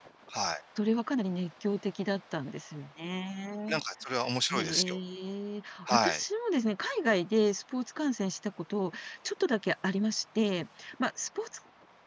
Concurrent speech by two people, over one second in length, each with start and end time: none

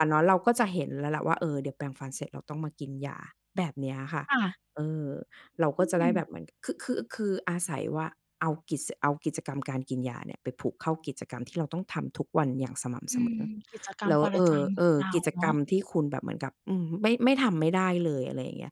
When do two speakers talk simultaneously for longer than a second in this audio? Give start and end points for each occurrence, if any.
14.1-15.5

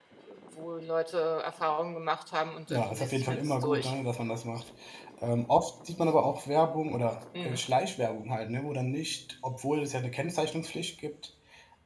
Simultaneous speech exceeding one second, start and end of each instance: 2.7-3.9

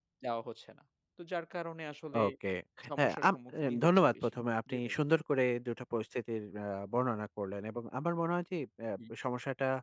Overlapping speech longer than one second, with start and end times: 3.0-4.3

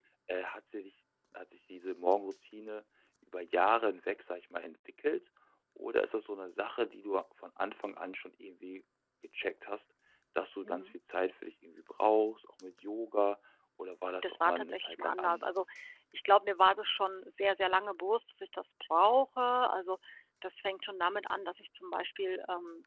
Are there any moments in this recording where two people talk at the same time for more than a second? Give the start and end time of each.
14.2-15.7

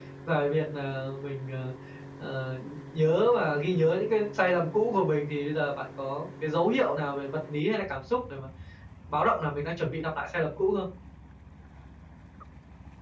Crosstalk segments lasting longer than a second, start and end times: none

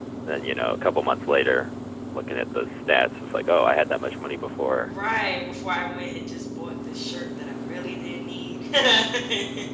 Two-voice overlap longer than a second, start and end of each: none

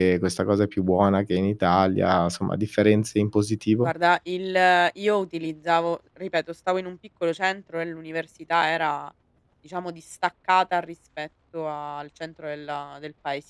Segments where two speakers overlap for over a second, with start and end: none

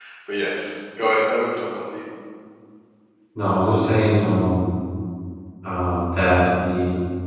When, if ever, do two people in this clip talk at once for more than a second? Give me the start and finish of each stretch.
none

